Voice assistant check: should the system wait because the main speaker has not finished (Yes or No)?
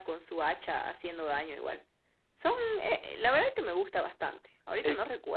Yes